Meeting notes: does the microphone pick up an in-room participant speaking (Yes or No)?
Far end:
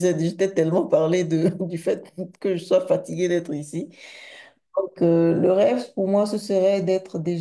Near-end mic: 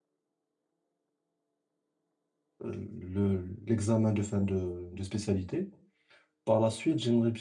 Yes